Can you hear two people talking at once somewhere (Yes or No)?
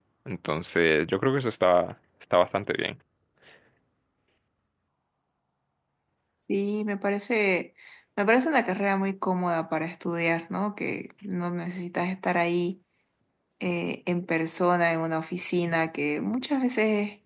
No